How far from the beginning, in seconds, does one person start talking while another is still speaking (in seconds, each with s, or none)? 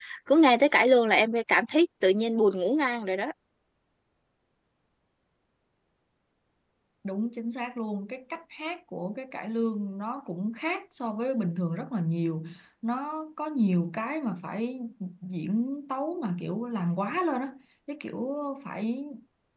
none